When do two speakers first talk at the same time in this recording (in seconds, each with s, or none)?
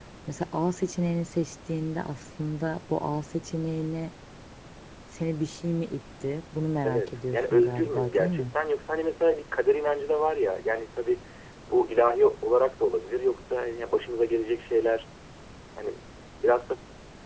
6.8 s